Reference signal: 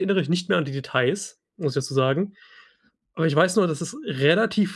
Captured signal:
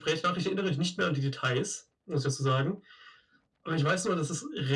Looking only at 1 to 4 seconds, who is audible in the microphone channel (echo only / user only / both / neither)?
echo only